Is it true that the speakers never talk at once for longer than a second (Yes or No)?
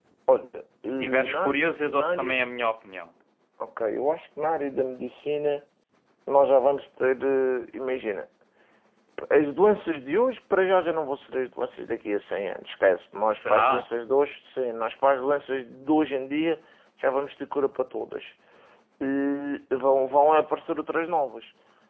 No